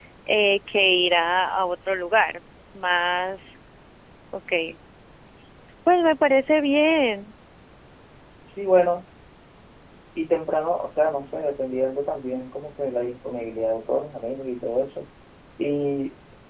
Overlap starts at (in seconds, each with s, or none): none